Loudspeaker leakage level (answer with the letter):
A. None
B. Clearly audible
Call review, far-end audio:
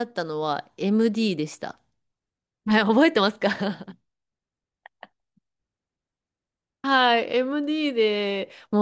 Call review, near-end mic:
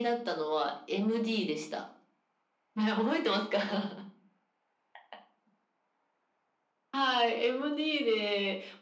B